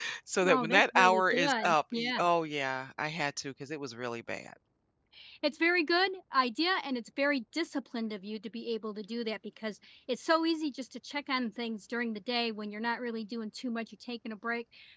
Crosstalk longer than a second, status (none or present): present